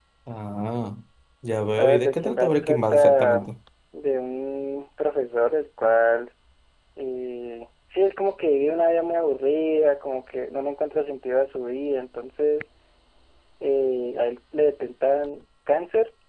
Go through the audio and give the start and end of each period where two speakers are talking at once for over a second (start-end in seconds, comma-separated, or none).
1.8-3.5